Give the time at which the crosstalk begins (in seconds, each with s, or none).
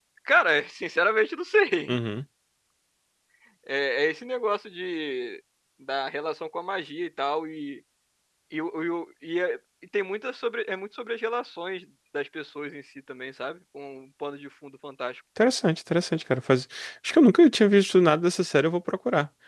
none